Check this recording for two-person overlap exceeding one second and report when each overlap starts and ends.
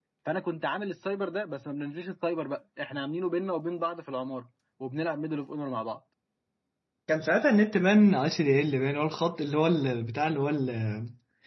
none

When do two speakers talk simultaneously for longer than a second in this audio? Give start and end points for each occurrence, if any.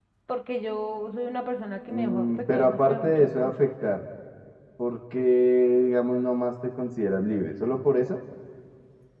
1.9-3.5

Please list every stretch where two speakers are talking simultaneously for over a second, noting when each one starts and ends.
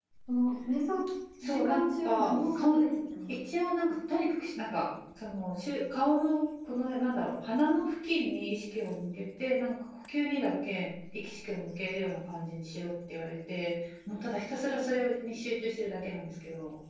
1.4-2.8

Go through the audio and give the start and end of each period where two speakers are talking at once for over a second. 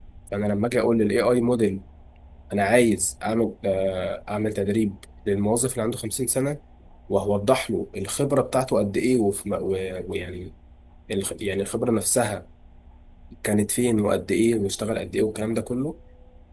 none

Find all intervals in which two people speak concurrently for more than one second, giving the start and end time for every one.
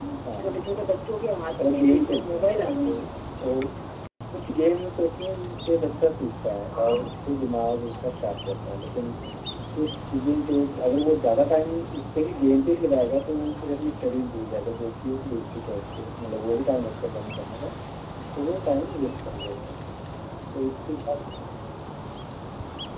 1.6-3.0

